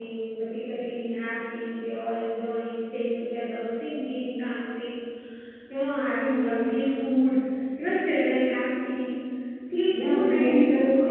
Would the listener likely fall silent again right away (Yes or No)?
No